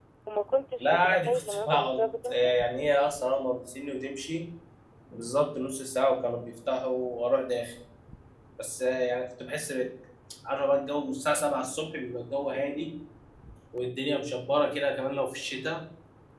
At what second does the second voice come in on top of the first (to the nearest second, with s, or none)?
1 s